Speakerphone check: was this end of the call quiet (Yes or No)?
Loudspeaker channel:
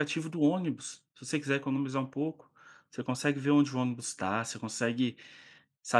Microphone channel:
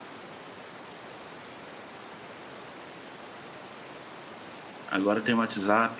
No